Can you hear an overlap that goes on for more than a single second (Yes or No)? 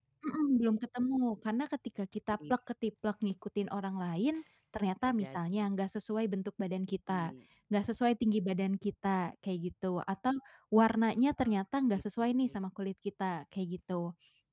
No